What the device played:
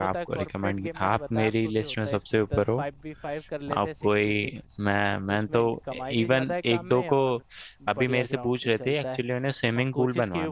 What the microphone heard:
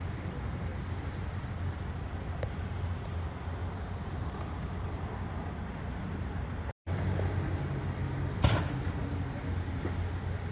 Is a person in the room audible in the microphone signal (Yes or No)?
No